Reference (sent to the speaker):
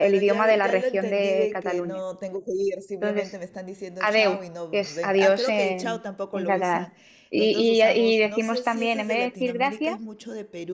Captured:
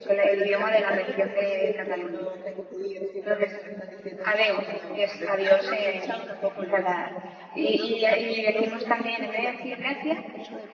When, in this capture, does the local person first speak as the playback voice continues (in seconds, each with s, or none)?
none